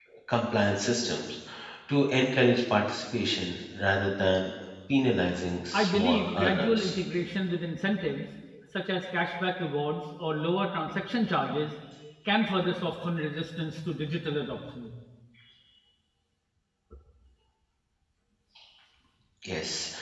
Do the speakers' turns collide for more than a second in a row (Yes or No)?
Yes